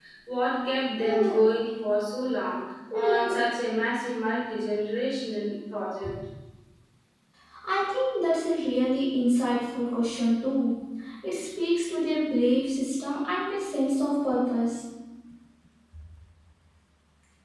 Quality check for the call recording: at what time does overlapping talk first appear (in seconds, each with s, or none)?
none